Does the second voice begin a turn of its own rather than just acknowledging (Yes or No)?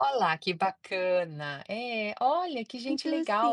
Yes